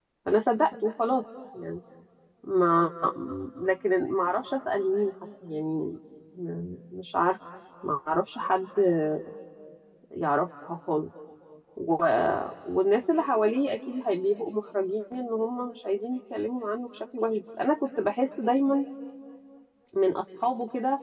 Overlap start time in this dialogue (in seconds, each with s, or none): none